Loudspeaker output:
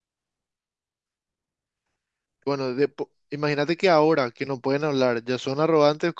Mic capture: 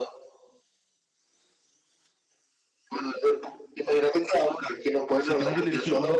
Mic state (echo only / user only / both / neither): both